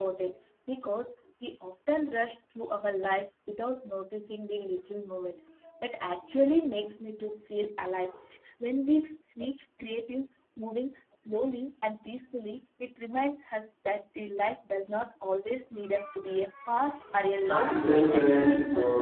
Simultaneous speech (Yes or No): Yes